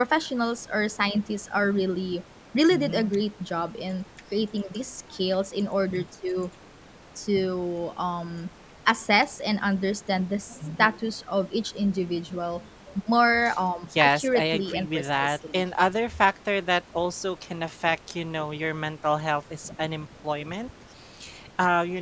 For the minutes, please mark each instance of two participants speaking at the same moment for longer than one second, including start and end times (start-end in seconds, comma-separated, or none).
14.0-15.6